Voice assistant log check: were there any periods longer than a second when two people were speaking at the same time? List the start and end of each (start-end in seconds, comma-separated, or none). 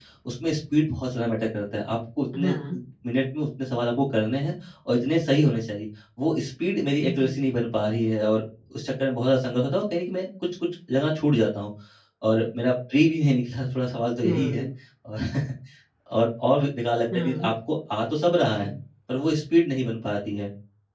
none